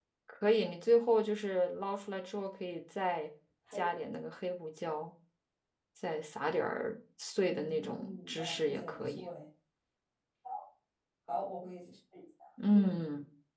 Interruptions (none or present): present